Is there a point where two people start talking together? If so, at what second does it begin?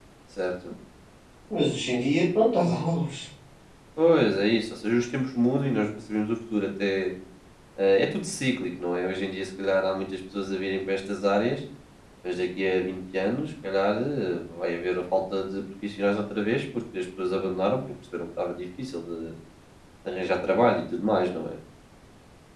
none

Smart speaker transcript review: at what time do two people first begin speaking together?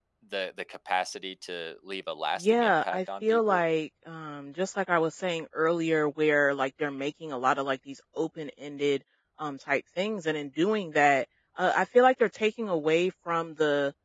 2 s

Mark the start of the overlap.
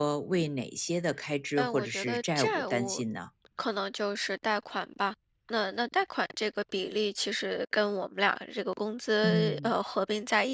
2 s

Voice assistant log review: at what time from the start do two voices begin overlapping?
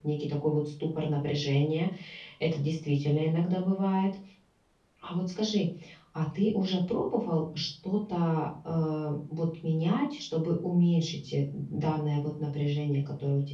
none

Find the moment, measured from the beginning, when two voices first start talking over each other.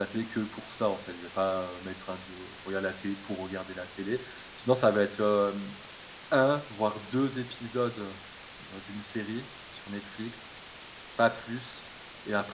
none

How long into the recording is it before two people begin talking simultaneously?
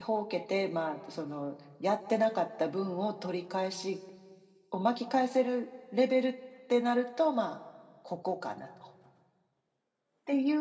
none

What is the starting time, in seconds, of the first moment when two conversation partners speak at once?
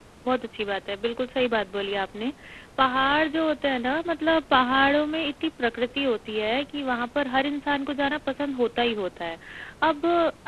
none

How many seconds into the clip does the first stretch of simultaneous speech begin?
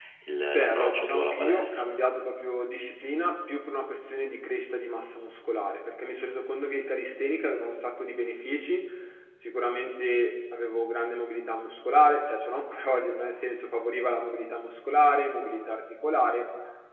1 s

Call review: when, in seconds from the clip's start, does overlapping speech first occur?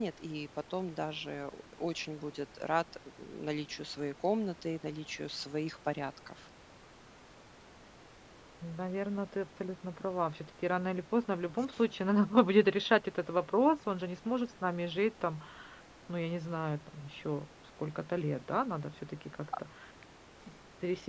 none

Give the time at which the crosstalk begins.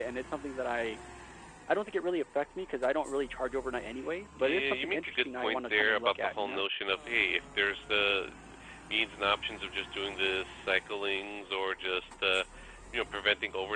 4 s

